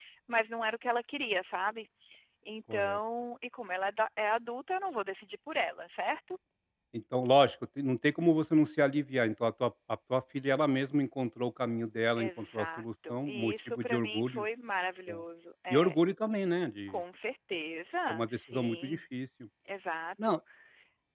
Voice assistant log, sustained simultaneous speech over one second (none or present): present